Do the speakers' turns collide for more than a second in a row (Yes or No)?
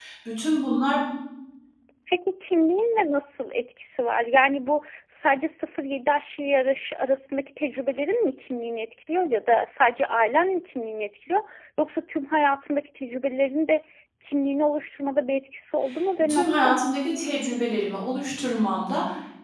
No